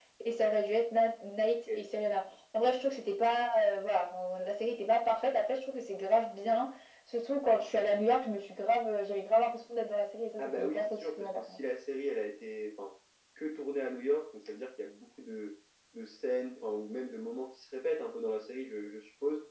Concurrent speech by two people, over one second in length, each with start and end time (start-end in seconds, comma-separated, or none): 10.4-11.6